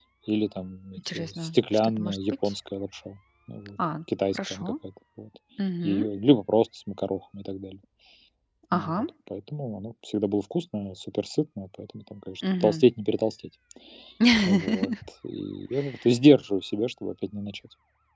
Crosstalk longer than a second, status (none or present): present